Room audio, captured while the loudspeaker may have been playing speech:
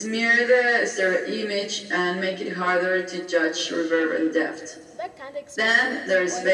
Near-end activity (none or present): present